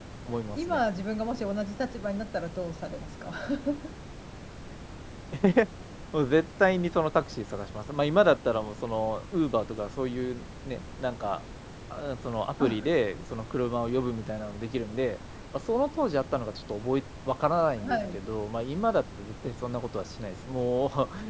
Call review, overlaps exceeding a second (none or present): none